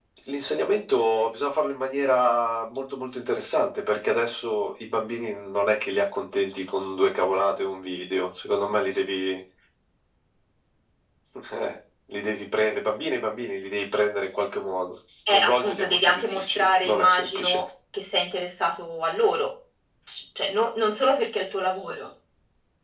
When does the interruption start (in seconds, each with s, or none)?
15.3 s